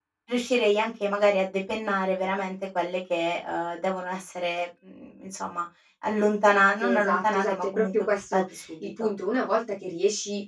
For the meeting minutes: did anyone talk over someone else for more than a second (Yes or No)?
Yes